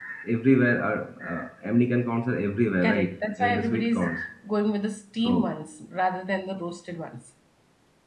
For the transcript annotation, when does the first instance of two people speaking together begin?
2.8 s

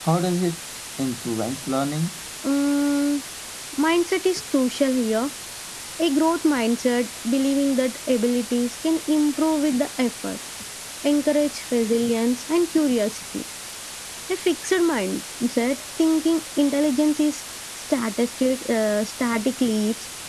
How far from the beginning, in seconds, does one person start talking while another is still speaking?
none

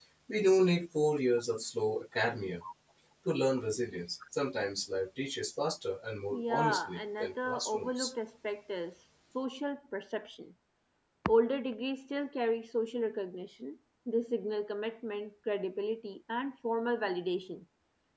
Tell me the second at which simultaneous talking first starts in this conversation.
6.3 s

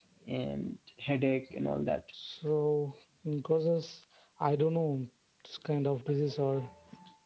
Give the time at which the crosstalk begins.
none

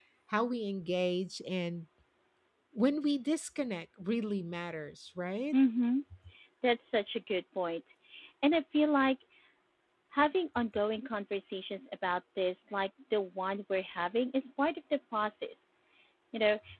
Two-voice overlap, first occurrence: none

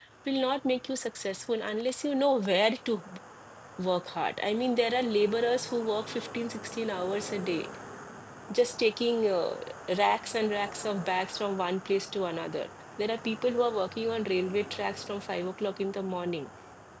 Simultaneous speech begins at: none

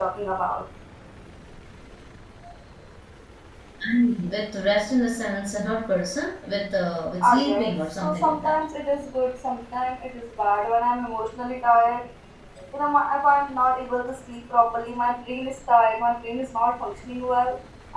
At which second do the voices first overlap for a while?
7.2 s

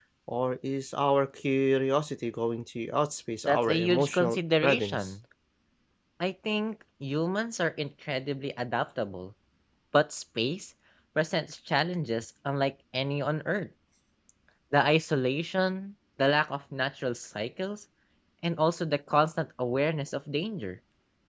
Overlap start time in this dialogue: 3.5 s

